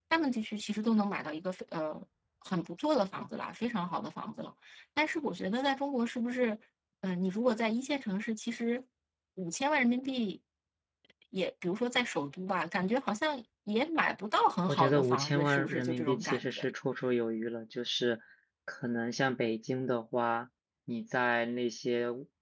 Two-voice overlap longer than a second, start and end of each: 14.7-16.7

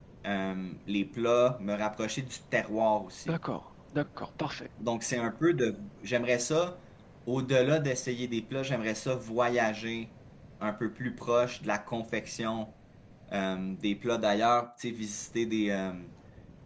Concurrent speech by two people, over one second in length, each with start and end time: none

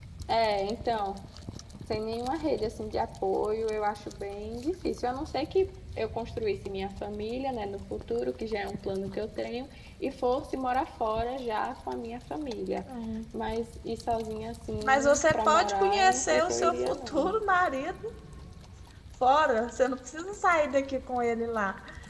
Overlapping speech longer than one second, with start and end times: 14.8-17.4

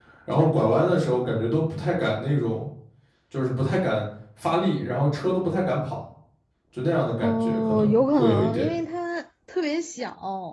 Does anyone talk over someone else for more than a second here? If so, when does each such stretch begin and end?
7.2-8.7

